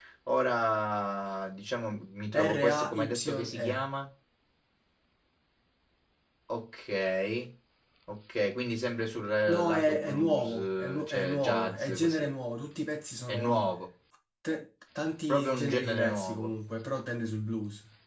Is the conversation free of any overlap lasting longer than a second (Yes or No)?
No